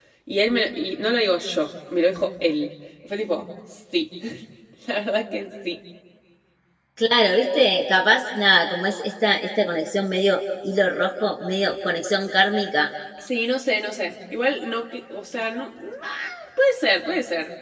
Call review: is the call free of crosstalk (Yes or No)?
Yes